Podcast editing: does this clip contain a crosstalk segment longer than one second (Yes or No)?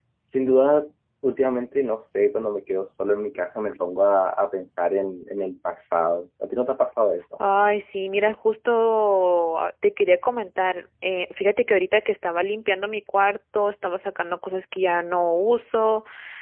No